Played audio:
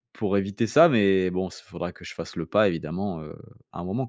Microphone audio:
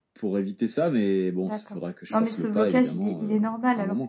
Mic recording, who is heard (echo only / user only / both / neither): both